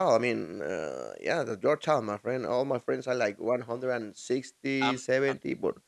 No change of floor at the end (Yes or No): Yes